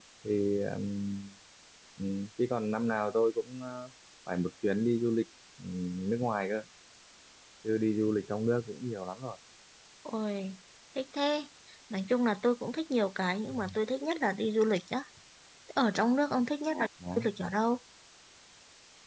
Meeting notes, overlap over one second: none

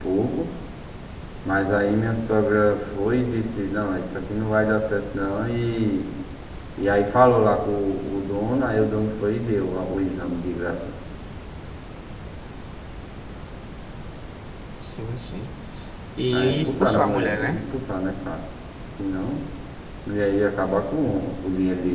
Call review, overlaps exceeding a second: present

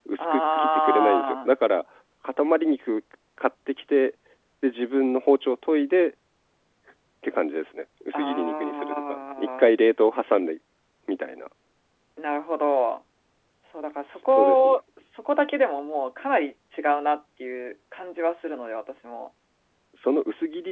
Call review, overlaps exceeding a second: present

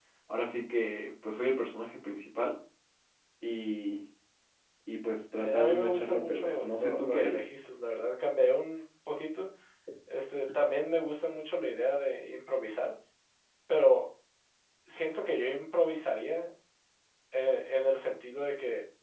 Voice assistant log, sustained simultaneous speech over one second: present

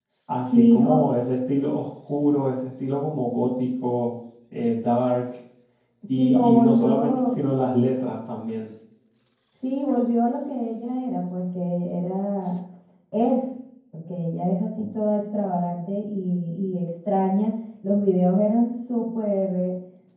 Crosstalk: present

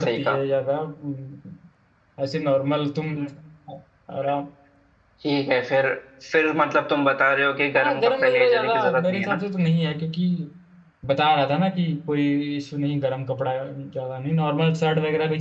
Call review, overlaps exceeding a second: present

